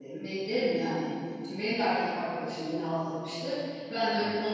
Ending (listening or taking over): listening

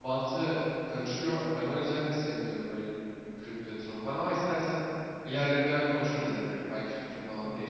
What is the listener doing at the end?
taking over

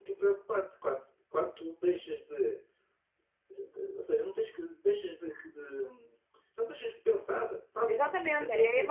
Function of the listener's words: taking over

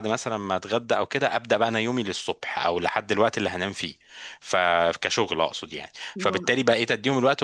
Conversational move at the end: listening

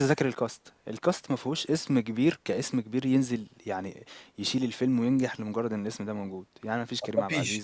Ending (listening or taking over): listening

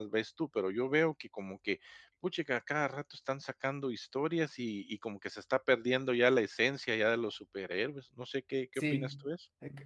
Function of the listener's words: taking over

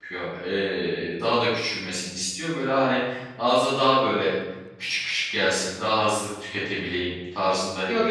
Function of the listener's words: taking over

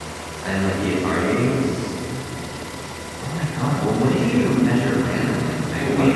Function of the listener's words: taking over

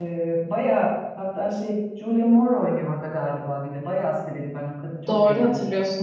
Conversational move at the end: taking over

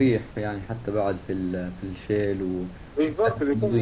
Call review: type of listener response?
taking over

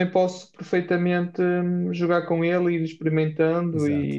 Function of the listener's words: taking over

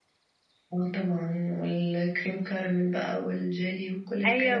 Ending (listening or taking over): taking over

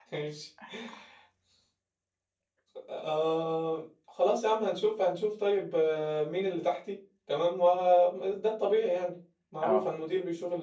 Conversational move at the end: listening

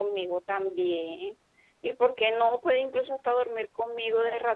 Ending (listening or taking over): taking over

